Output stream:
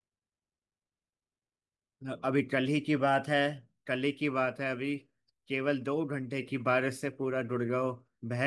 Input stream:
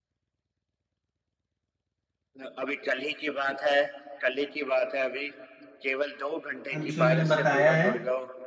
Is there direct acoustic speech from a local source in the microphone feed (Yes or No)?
Yes